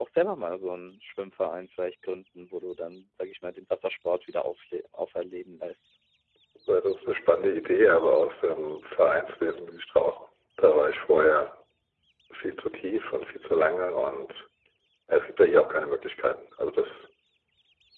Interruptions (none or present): none